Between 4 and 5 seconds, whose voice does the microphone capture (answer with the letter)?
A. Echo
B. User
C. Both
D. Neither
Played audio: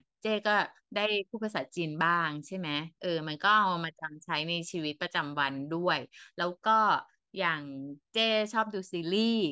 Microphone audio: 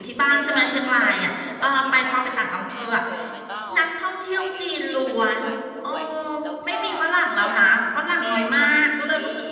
C